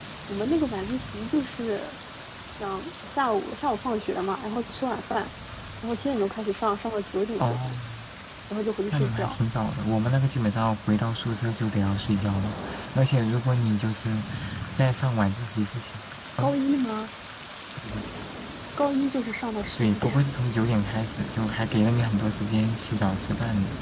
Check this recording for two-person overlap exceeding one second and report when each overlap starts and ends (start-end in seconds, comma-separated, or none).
none